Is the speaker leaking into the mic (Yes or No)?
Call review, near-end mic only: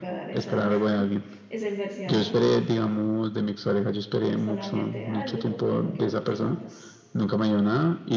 Yes